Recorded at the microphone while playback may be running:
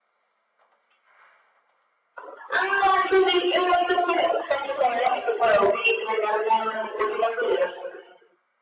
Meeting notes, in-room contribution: none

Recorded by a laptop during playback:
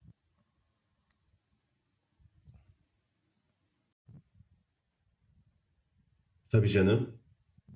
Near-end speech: present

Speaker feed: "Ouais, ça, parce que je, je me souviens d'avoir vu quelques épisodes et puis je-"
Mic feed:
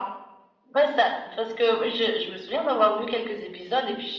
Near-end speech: none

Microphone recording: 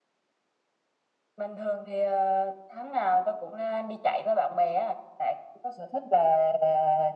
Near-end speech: none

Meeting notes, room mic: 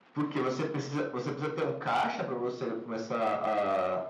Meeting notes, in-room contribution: none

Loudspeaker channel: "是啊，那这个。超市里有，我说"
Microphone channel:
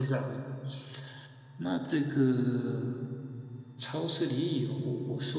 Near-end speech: none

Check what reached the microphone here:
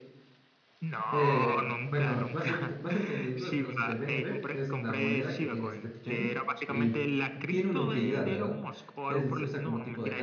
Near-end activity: present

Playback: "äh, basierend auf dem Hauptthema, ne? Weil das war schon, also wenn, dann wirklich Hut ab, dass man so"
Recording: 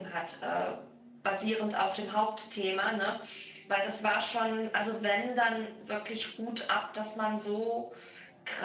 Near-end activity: none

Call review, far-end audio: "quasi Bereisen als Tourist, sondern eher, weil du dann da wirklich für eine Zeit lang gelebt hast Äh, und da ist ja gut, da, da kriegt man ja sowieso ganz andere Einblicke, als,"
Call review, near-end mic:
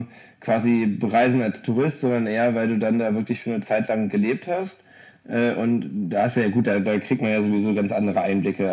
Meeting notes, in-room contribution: none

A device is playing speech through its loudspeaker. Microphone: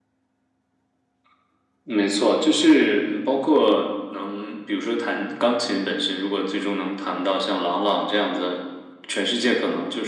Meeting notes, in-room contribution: none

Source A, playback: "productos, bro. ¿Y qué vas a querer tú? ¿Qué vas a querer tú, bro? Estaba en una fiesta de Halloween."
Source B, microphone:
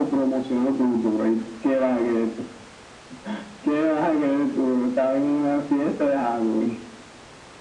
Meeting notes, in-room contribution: none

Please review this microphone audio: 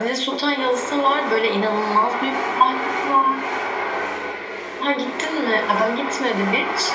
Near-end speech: none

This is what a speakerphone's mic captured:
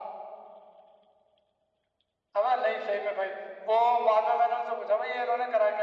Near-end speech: none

